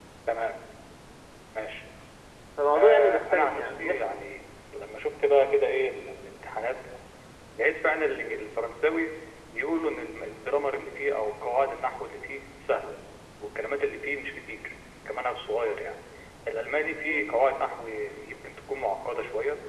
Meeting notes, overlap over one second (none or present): present